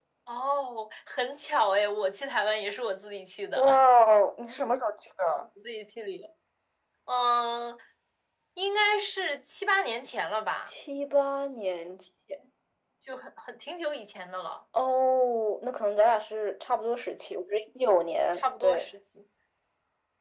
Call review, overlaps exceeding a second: none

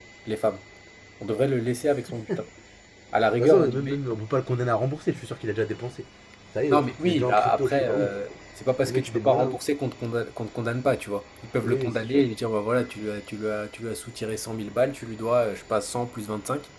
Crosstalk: present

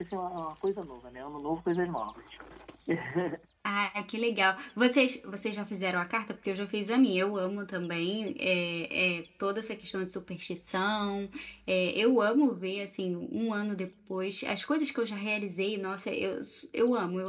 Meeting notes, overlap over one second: none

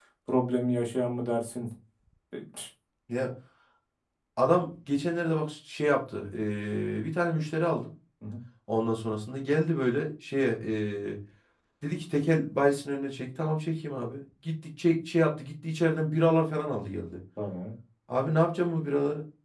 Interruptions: none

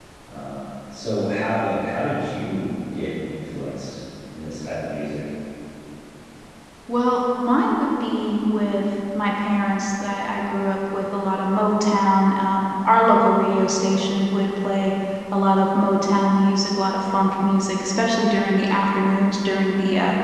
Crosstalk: none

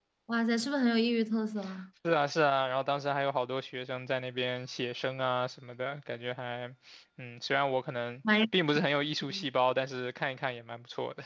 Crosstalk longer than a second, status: none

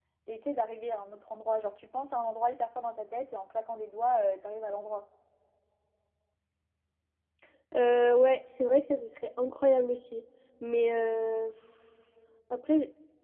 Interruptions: none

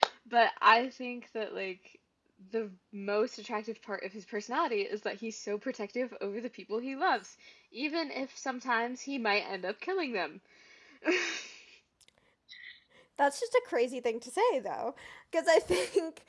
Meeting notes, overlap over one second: none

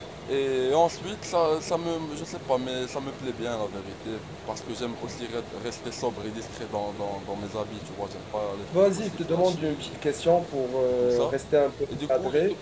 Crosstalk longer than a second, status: present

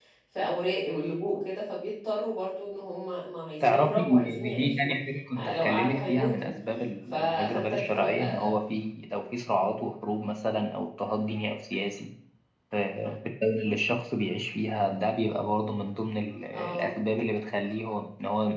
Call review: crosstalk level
present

